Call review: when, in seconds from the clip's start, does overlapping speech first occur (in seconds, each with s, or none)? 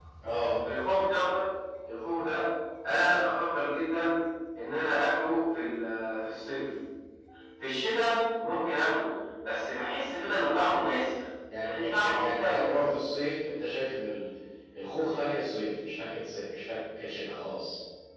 11.5 s